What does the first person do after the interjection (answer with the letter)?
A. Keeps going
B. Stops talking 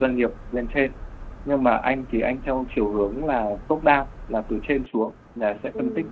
A